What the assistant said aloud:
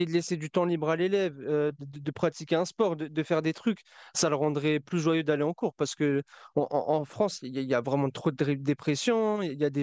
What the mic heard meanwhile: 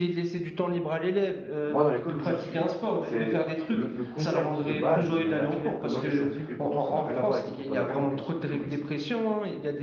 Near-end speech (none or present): present